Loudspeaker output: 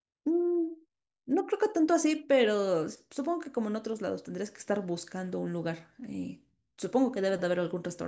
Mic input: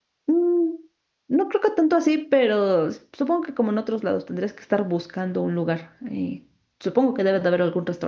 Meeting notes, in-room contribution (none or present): none